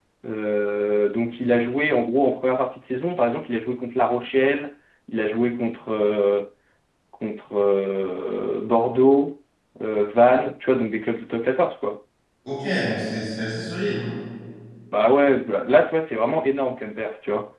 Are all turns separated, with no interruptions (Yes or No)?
Yes